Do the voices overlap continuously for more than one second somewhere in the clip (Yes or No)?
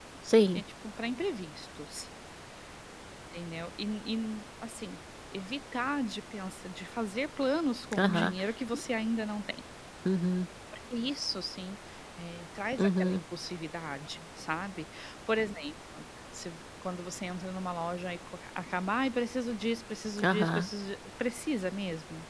No